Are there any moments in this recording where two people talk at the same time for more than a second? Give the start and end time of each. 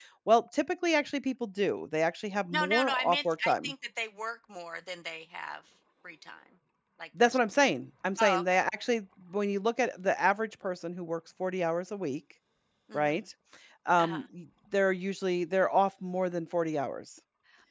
2.5-3.7

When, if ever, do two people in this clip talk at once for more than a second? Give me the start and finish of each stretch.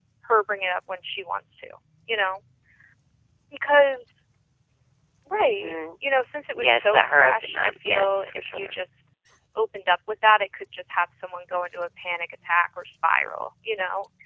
6.6-8.7

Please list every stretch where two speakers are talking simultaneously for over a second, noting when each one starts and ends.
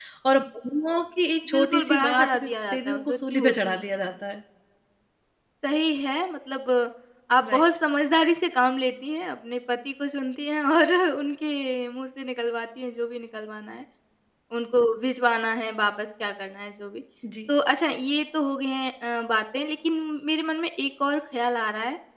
1.5-4.1

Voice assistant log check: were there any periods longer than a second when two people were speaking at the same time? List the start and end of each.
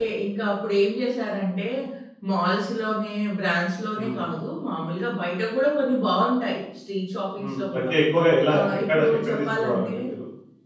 8.6-9.9

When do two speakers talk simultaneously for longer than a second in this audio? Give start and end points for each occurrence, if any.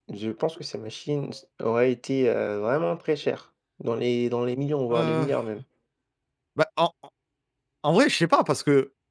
none

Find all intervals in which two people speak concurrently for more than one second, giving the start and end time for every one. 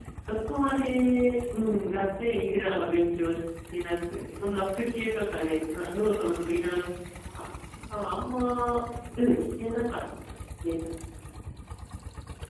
none

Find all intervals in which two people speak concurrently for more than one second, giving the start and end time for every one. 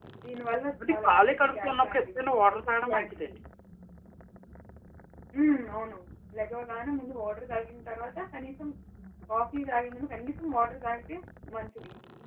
0.9-3.3

